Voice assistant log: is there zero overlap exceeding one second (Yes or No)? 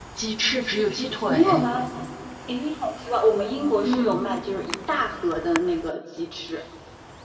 Yes